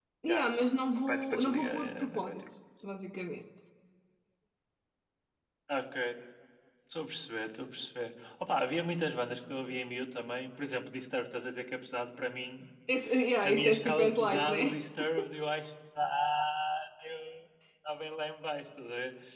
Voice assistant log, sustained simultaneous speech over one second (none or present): present